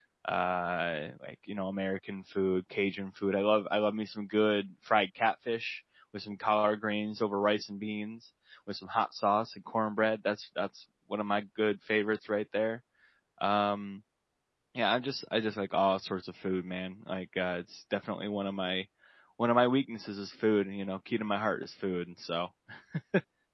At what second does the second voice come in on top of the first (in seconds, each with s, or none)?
none